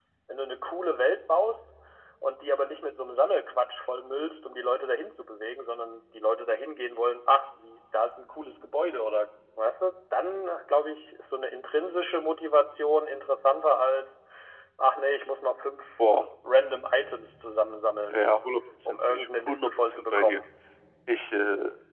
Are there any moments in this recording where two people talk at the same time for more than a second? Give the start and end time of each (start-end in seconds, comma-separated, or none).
18.9-20.4